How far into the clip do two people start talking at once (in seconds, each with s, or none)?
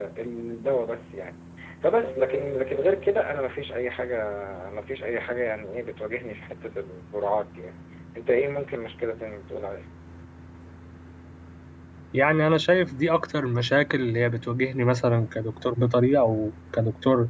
none